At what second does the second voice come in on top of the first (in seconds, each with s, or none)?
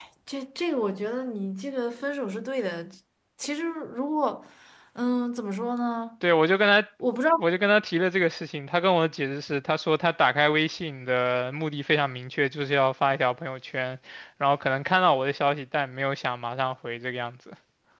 none